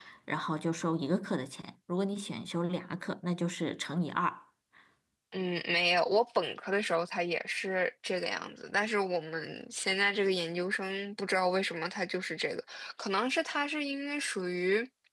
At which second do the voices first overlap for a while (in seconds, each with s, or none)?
none